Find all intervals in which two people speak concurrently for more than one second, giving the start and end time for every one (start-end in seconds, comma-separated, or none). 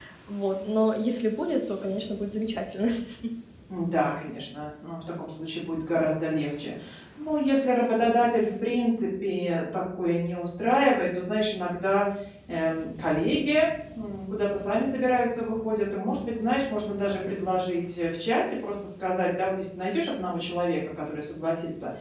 none